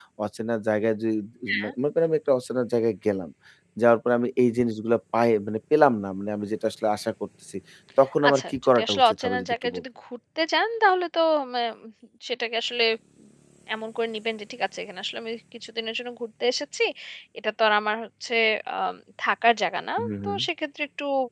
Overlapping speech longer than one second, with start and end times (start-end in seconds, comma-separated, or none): 8.3-9.8